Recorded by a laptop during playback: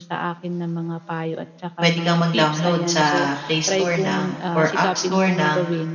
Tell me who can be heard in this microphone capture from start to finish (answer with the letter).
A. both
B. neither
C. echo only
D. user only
A